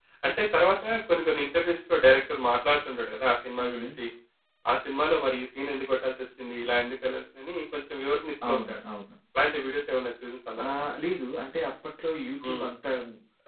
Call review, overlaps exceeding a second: none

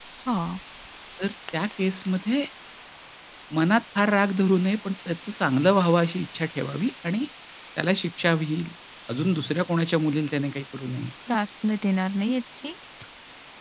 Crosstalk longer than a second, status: none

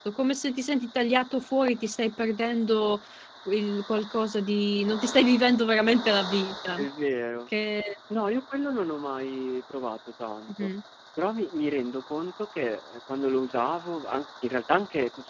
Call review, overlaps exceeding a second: none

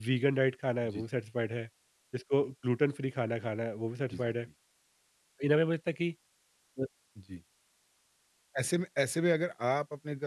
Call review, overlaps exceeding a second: none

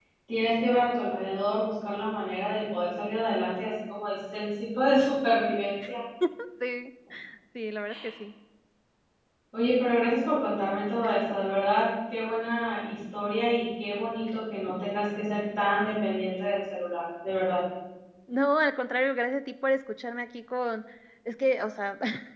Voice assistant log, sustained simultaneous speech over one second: none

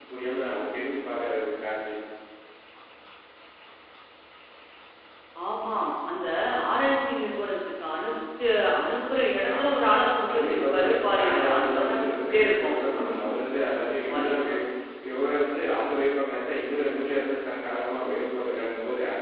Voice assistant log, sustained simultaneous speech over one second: present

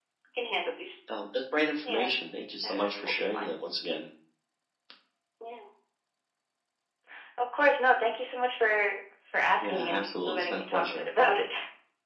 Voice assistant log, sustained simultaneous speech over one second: present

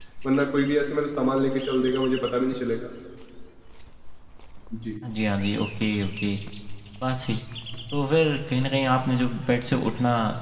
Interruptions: none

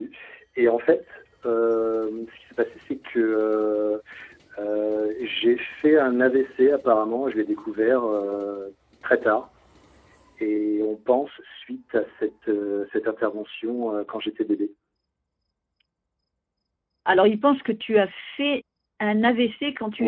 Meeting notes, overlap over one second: none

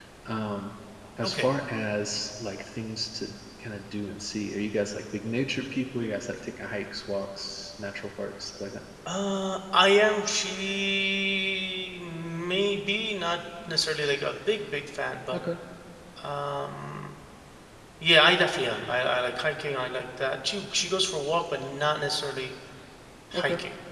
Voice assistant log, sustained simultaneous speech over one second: none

